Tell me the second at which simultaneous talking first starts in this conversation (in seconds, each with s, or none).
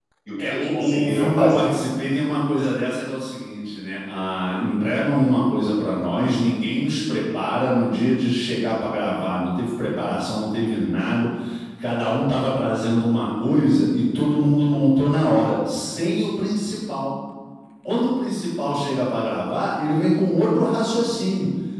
0.5 s